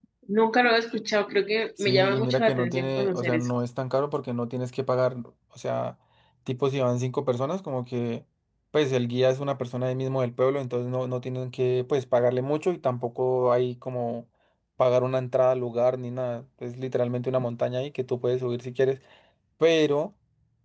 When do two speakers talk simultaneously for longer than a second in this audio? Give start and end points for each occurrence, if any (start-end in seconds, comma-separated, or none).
1.8-3.5